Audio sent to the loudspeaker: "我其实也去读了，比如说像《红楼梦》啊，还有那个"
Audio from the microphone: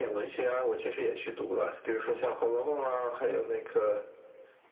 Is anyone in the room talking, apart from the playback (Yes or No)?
No